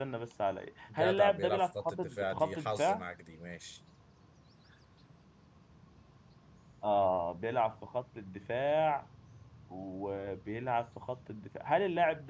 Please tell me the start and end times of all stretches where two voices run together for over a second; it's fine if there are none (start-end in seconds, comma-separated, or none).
0.9-3.0